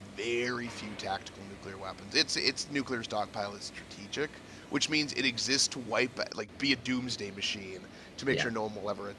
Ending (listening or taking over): listening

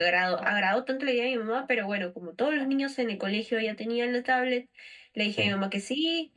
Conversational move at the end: listening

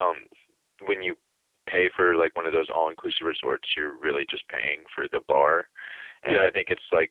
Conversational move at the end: listening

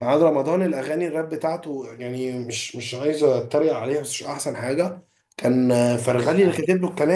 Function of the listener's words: listening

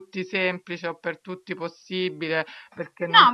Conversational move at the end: taking over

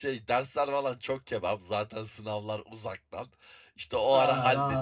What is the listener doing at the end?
listening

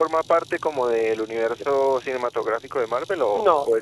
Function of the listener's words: taking over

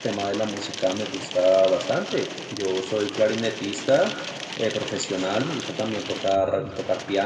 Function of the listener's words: listening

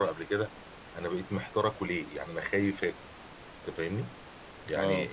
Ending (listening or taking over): listening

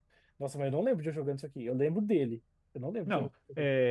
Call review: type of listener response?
taking over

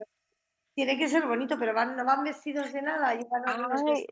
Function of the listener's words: taking over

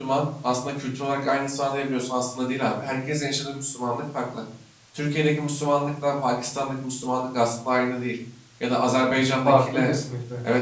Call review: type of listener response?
listening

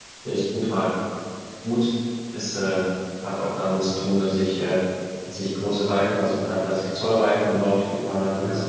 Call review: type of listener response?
listening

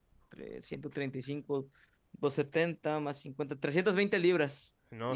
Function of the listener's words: taking over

